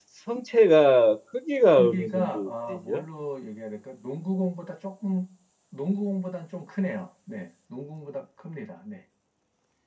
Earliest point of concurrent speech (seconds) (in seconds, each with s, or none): 1.8 s